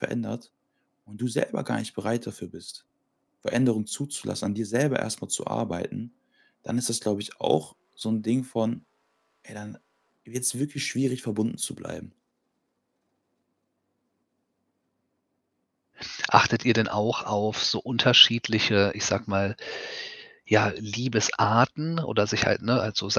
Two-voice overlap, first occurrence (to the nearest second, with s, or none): none